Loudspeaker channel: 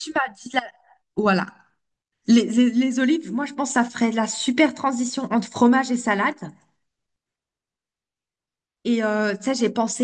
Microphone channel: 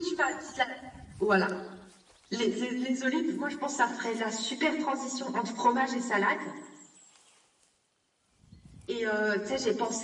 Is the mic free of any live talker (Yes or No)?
Yes